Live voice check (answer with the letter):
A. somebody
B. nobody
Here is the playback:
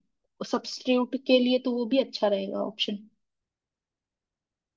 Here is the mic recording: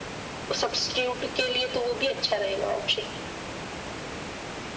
B